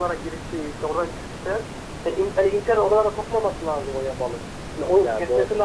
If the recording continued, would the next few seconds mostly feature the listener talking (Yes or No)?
No